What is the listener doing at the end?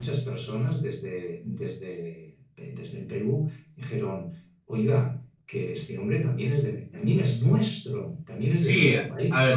taking over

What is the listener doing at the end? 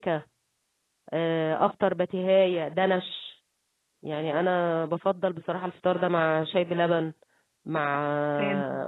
listening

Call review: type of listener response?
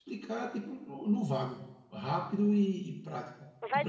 taking over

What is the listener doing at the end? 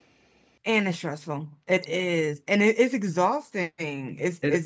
listening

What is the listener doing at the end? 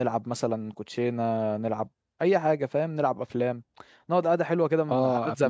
taking over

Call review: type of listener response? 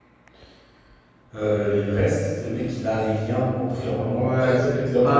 taking over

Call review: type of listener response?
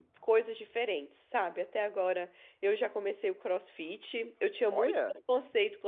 listening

